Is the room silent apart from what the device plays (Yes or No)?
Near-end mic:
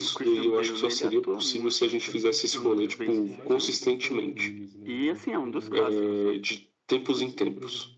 No